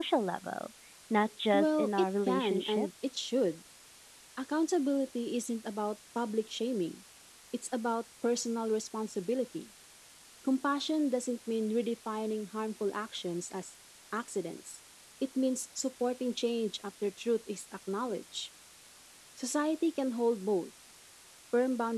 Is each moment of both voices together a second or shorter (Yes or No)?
No